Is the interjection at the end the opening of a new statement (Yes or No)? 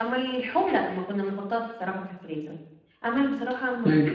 Yes